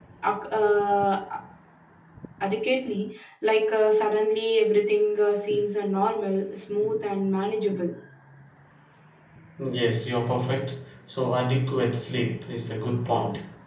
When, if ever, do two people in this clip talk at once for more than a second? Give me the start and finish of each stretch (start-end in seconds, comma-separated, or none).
none